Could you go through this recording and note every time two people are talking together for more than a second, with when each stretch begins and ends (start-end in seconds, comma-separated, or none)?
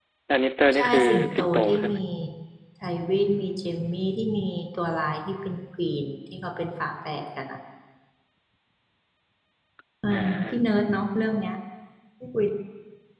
0.7-2.0